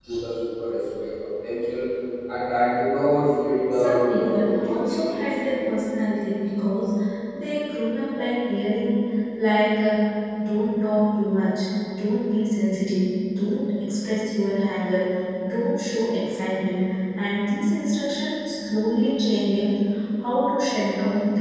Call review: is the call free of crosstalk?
No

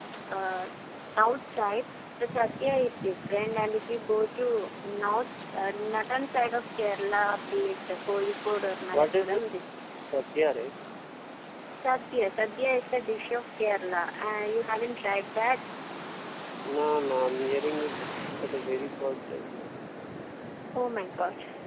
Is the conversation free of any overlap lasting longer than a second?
Yes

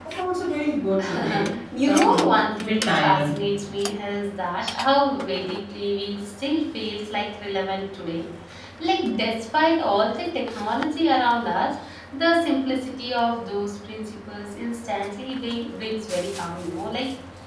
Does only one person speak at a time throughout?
No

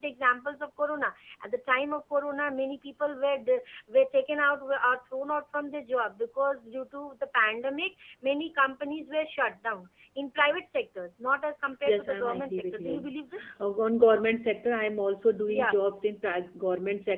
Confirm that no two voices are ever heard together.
No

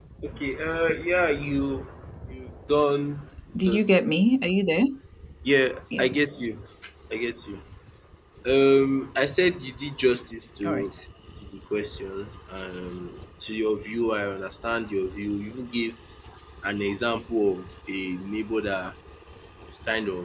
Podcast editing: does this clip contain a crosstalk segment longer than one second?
No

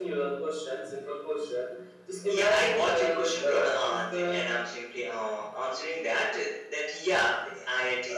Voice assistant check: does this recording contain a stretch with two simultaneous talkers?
Yes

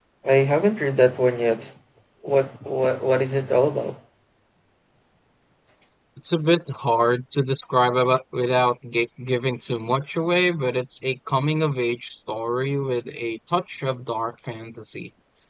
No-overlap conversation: Yes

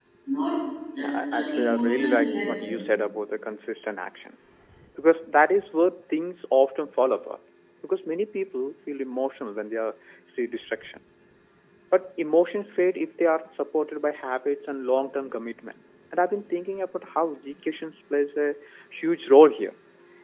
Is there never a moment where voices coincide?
No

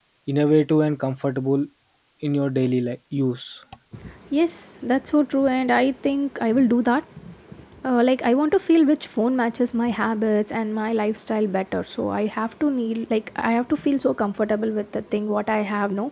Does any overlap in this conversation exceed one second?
No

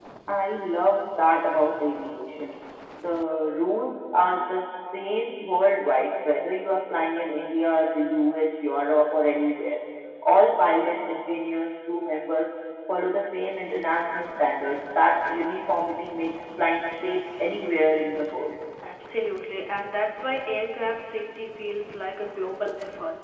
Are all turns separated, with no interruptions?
Yes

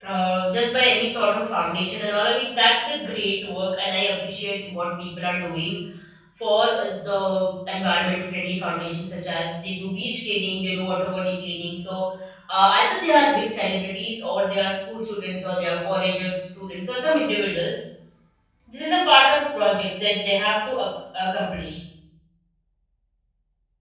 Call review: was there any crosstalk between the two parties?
No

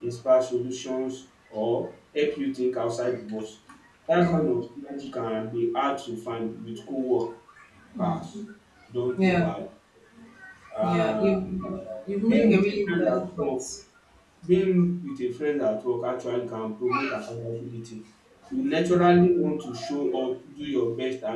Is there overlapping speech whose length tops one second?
Yes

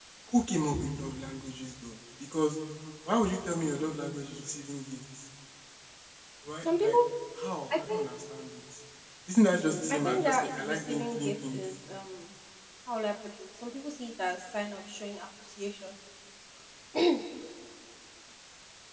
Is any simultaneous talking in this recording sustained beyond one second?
Yes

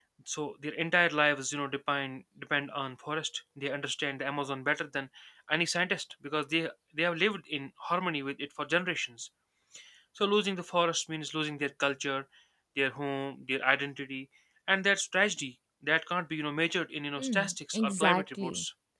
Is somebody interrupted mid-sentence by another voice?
Yes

